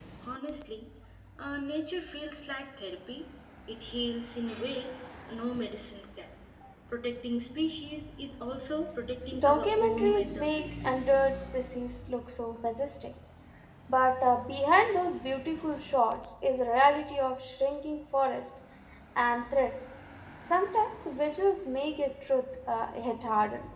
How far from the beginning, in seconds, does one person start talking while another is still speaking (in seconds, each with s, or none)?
9.3 s